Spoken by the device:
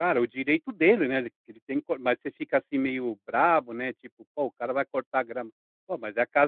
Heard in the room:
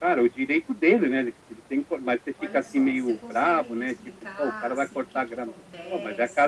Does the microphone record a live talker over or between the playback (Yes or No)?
Yes